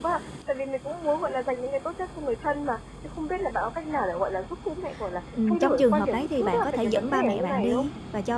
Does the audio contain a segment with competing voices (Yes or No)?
Yes